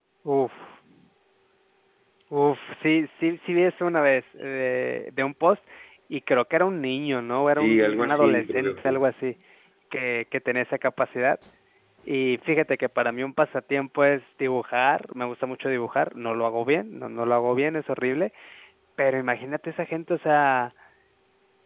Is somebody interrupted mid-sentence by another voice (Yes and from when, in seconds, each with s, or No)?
Yes, from 7.5 s